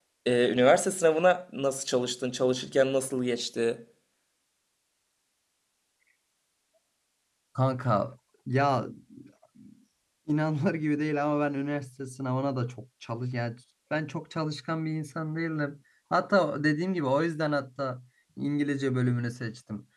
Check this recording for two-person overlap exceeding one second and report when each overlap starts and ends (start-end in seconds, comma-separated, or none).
none